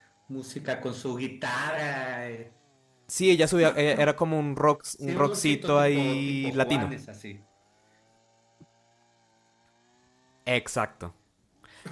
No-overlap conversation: No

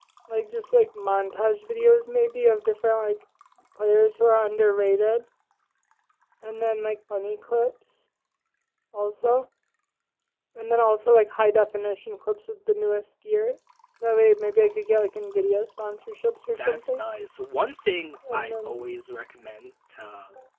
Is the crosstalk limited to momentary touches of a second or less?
Yes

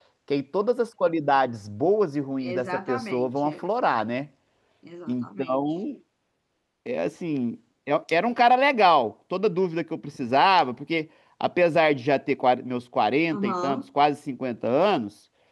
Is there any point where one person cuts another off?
Yes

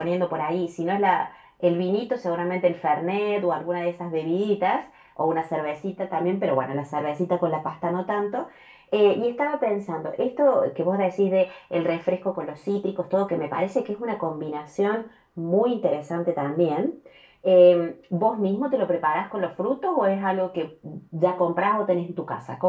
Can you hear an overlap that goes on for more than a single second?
No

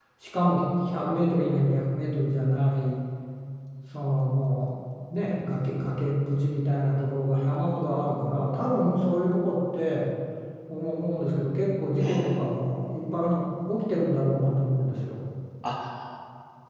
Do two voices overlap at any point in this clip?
Yes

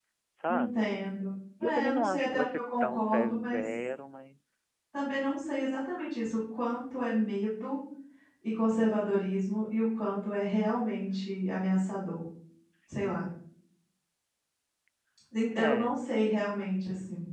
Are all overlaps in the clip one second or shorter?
No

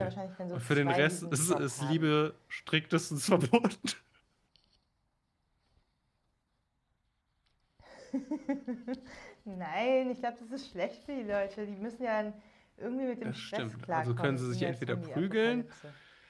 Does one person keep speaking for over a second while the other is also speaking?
Yes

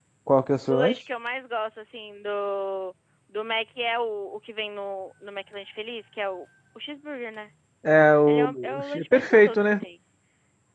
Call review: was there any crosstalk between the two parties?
Yes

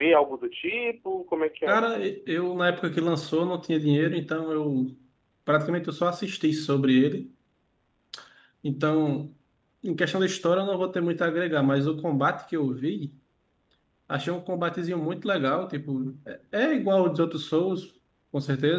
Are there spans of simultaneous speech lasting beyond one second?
No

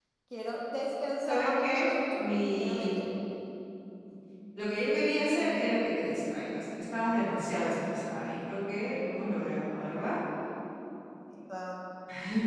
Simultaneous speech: Yes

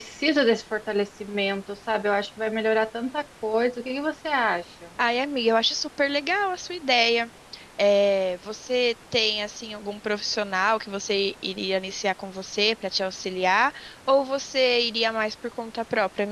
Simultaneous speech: No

